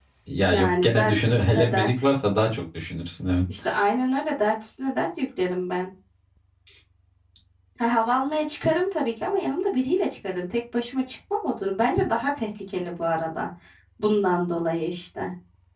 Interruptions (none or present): present